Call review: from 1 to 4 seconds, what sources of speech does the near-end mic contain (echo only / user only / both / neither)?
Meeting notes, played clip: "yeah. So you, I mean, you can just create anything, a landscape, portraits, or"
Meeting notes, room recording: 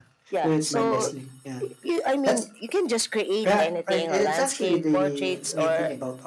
both